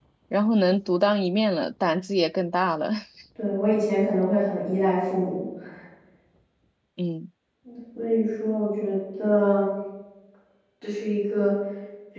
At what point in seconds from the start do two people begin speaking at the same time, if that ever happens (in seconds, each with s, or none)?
none